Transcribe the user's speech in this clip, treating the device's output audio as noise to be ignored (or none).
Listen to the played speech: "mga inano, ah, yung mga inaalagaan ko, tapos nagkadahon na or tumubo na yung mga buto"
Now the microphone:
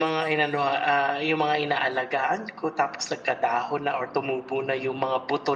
none